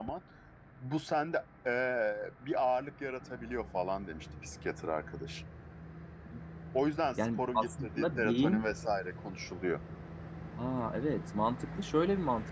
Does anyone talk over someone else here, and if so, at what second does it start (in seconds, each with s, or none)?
7.2 s